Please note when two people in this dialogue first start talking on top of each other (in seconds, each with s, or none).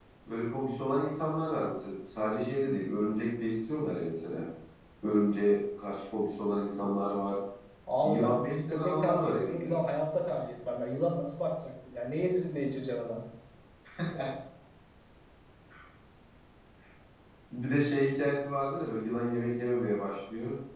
8.0 s